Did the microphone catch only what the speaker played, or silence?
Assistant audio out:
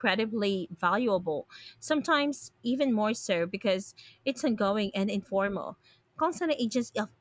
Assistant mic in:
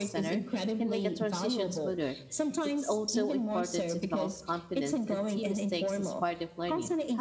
No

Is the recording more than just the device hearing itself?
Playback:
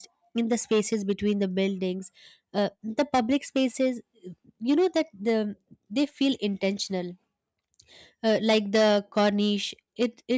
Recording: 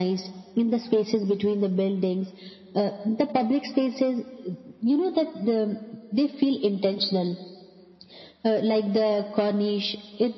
No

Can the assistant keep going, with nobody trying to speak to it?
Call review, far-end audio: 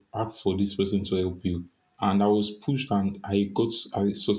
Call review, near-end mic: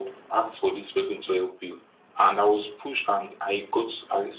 Yes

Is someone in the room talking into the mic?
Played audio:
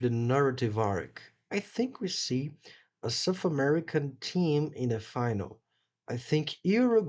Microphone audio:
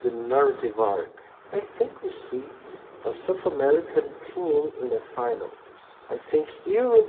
No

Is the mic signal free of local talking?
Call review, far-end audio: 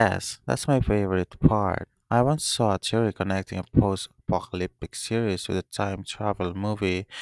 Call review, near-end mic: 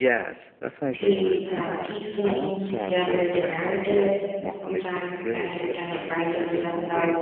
No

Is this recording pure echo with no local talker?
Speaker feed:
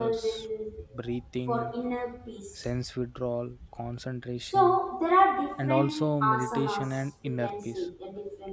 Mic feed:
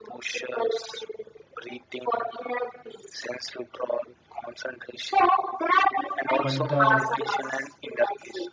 No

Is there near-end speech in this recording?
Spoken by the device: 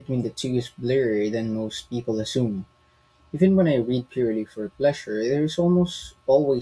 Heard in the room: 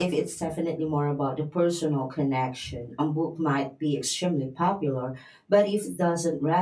Yes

